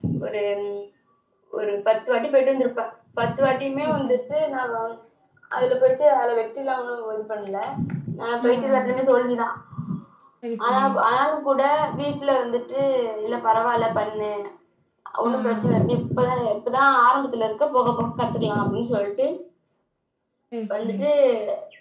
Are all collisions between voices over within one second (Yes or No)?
Yes